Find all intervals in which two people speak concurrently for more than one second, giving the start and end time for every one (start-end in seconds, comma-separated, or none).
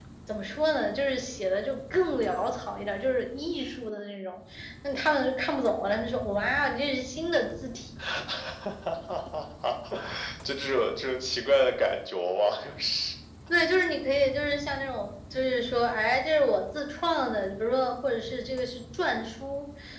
none